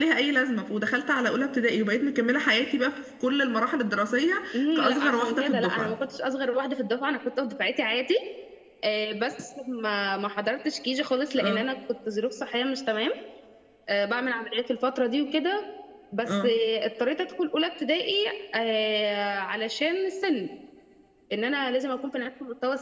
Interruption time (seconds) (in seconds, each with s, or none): 4.6 s